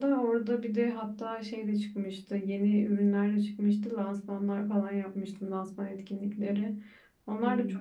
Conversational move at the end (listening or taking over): listening